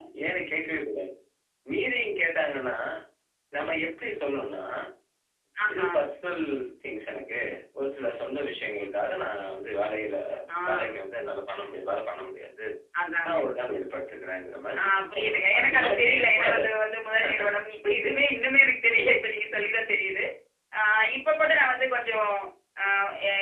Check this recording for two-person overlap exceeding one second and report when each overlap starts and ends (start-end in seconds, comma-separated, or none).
14.8-16.8